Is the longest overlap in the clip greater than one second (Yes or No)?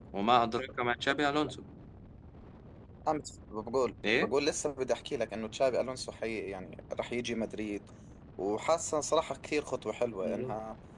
No